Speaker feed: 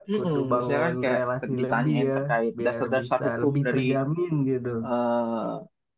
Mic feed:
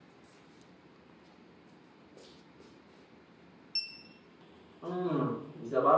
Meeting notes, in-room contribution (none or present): present